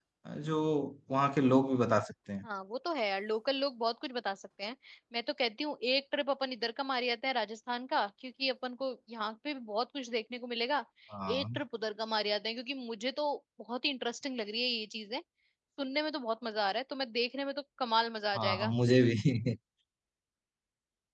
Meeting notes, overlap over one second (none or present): none